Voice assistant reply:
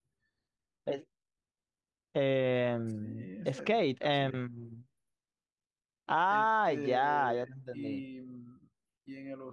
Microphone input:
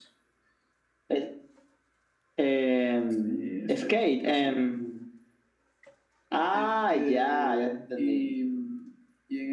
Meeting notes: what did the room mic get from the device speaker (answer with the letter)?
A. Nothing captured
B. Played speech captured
B